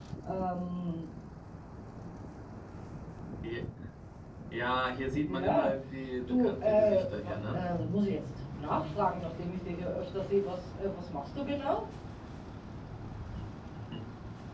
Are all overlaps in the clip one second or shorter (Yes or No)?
No